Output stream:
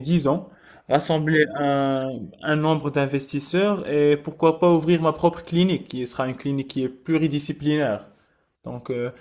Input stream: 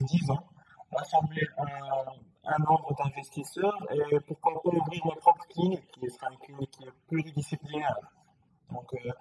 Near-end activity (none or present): none